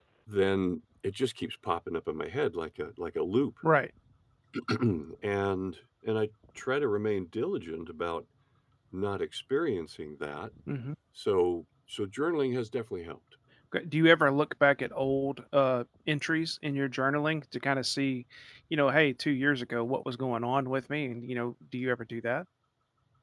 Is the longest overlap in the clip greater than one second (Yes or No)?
No